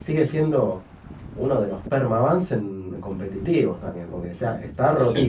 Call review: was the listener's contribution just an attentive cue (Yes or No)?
Yes